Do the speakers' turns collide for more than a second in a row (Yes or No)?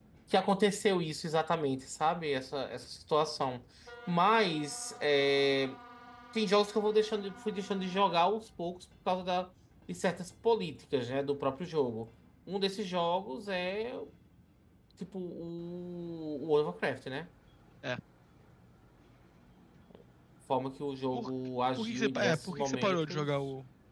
Yes